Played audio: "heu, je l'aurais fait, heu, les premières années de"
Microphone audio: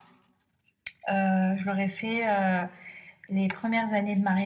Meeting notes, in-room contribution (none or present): none